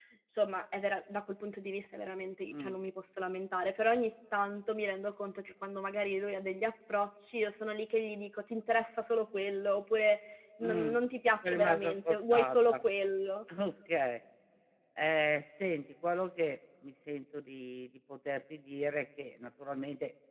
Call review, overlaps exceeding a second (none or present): present